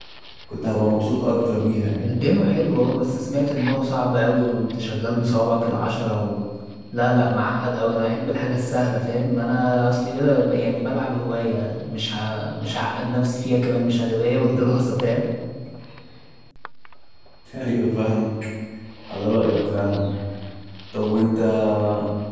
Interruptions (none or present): none